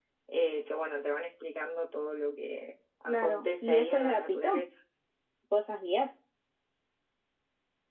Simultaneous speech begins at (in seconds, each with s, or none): 3.1 s